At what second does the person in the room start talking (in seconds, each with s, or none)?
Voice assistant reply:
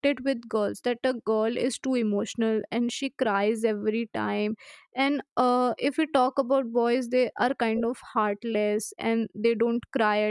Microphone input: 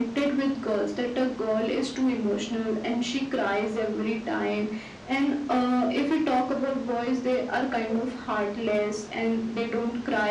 none